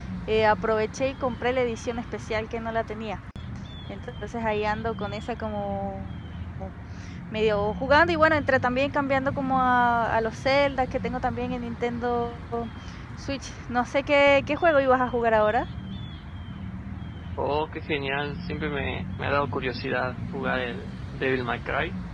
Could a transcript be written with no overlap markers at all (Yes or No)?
Yes